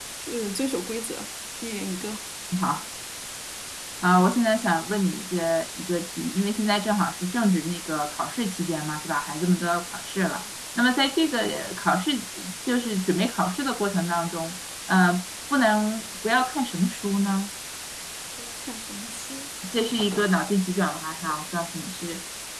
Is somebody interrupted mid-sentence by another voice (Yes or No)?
No